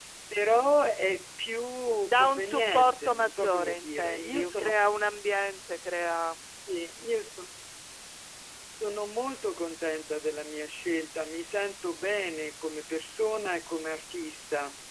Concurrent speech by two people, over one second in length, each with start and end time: 2.0-4.7

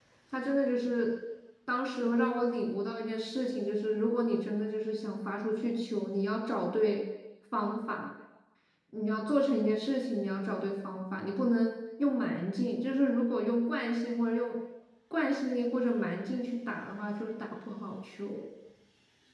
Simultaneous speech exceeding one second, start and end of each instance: none

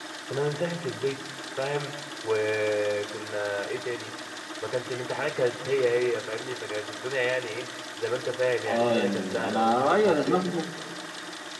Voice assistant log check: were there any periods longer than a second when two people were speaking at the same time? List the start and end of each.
8.7-10.4

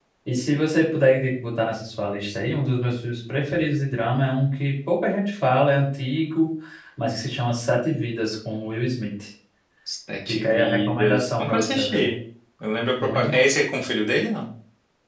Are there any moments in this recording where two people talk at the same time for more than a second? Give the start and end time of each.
10.3-12.0

